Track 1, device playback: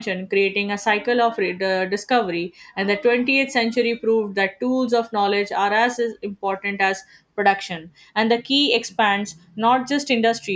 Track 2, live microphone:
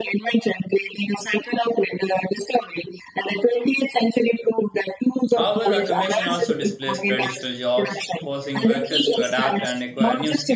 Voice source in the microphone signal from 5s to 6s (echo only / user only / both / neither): both